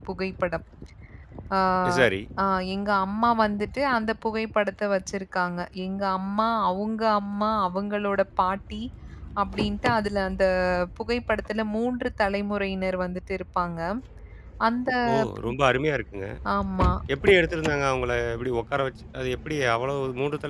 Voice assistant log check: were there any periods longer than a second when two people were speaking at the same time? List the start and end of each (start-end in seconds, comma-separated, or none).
none